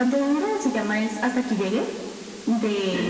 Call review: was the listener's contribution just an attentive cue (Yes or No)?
Yes